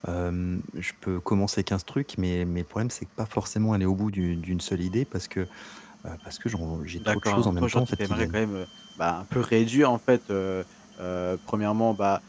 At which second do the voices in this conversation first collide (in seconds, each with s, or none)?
7.0 s